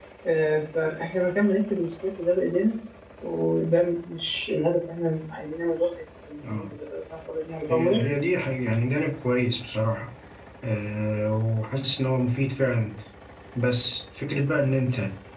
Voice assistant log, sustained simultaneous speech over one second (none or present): none